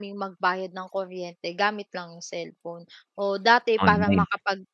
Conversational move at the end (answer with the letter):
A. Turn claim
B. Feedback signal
B